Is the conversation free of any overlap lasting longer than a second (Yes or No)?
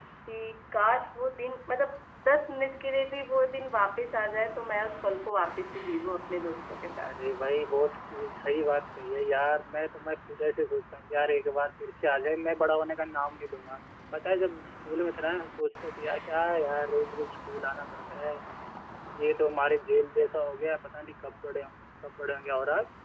Yes